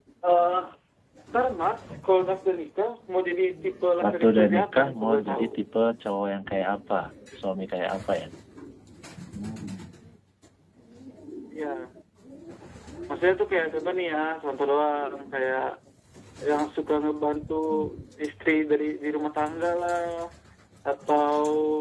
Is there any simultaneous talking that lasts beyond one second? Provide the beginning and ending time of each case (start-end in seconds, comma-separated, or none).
4.0-5.5